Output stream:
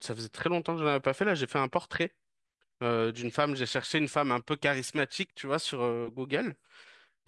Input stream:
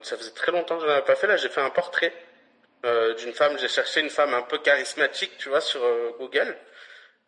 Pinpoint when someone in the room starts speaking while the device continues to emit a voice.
none

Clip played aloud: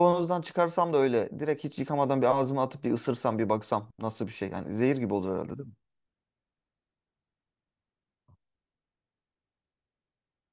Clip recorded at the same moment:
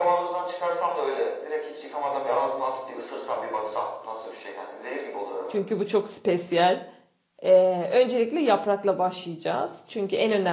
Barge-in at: 5.5 s

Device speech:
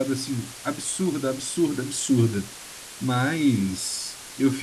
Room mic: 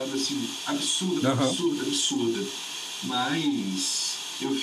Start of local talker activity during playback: 1.2 s

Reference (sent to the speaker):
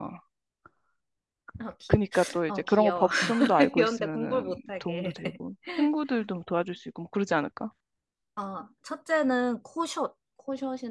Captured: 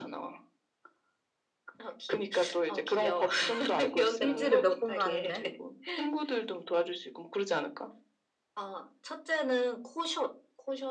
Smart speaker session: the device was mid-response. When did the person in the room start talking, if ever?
4.2 s

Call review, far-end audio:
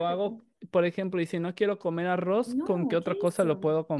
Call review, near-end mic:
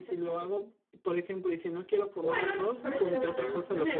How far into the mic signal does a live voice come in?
2.2 s

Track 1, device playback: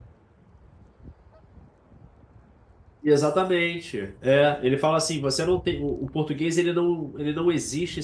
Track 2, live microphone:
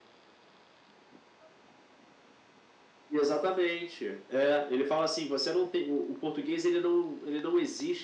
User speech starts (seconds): none

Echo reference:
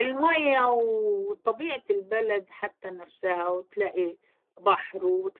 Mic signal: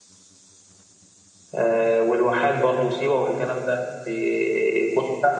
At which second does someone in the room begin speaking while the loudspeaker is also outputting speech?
1.5 s

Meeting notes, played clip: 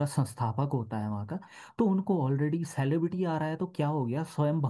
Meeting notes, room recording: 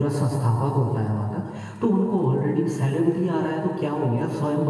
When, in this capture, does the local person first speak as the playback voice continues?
none

